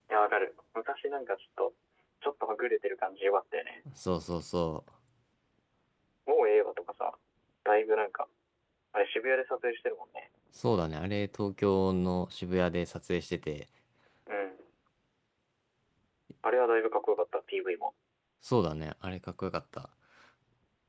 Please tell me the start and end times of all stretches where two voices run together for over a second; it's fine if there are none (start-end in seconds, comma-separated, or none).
none